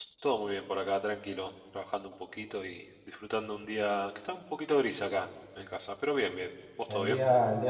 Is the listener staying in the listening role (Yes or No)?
No